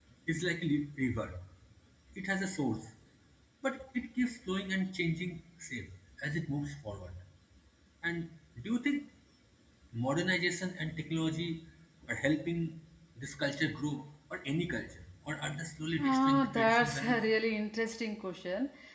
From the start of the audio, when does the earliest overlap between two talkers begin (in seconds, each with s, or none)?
16.0 s